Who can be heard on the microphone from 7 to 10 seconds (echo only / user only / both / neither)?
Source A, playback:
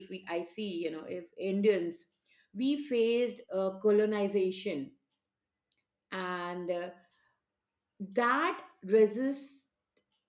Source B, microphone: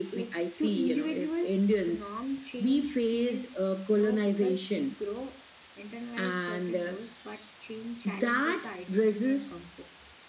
both